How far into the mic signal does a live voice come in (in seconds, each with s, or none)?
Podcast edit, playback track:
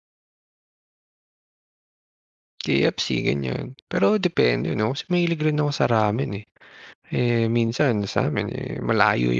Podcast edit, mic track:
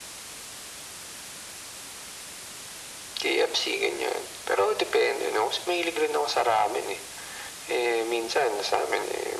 none